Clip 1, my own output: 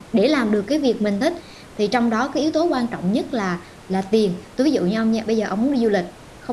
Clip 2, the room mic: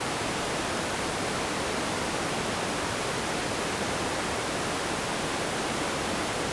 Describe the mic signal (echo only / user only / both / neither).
neither